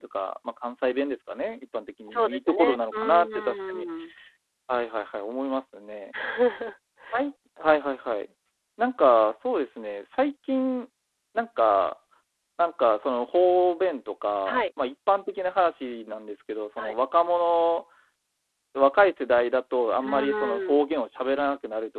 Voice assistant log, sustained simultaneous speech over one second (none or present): present